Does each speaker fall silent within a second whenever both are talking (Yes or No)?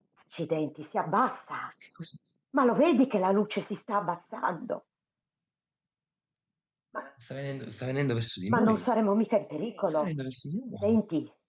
Yes